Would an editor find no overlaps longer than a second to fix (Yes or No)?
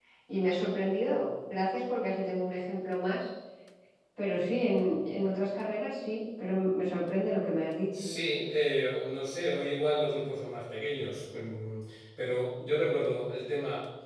Yes